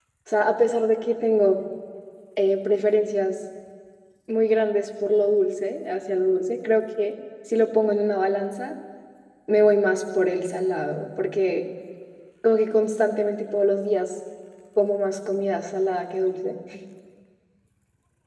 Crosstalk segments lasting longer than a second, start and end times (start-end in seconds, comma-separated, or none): none